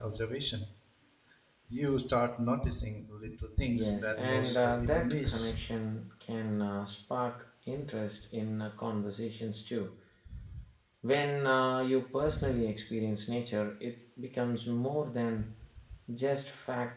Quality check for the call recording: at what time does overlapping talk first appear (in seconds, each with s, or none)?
3.7 s